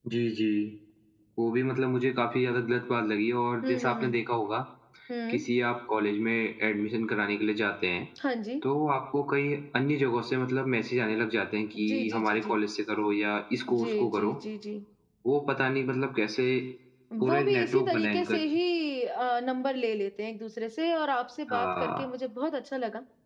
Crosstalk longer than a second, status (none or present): present